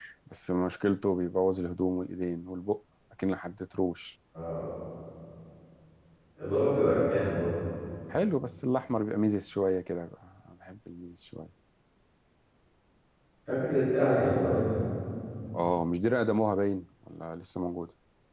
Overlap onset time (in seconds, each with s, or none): none